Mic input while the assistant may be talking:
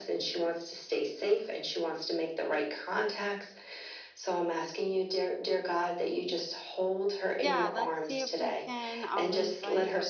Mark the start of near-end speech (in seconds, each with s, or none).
7.4 s